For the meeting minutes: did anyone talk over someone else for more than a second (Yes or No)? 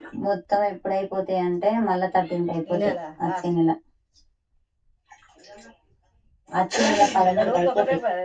Yes